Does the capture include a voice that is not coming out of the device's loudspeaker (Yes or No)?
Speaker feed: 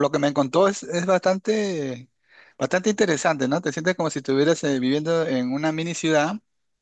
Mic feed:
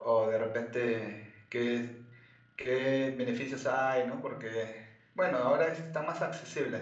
Yes